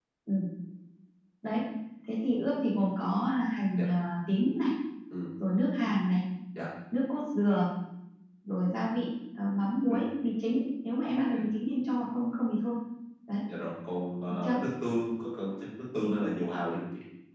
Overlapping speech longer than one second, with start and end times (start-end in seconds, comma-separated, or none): none